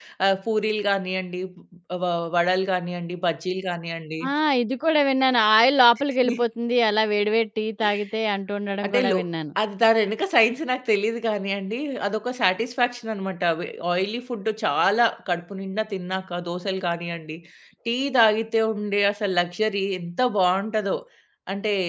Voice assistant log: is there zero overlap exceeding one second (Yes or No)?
Yes